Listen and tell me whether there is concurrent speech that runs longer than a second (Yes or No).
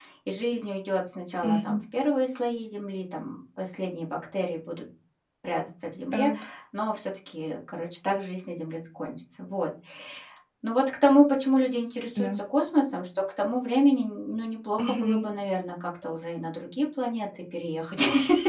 No